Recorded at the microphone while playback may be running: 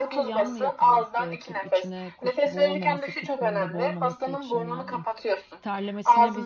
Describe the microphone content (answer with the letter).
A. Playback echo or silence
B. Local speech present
B